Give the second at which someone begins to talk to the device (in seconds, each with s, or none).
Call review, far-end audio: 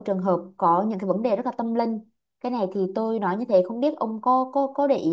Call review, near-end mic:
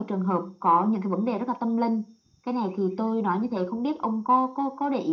none